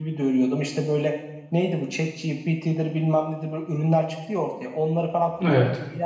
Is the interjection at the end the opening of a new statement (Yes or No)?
No